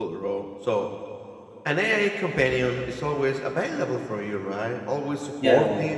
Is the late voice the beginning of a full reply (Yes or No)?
No